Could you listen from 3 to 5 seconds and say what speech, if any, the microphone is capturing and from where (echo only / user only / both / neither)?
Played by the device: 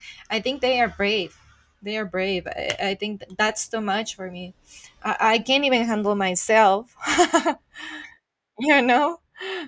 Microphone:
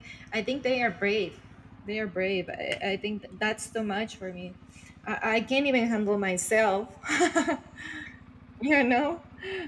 echo only